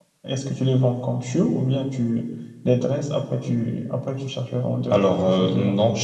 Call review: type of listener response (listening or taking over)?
taking over